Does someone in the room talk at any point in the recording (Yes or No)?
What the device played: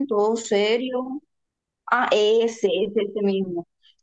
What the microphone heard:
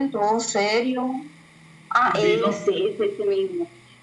Yes